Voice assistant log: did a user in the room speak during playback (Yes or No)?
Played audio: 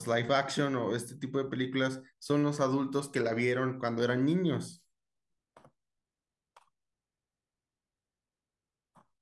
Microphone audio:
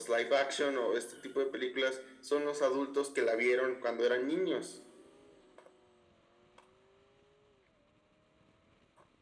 No